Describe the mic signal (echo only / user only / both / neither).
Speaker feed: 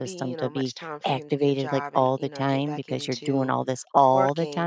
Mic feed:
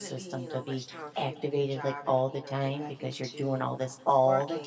echo only